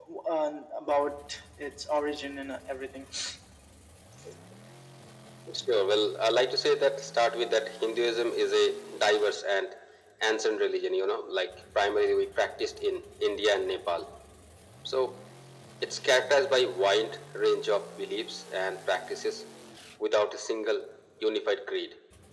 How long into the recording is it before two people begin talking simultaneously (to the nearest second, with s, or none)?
none